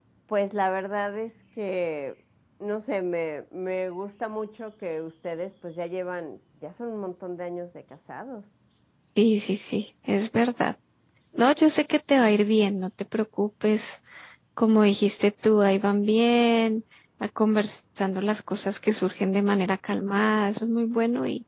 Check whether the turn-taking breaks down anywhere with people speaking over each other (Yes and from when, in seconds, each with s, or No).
No